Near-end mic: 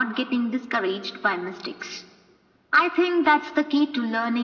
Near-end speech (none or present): none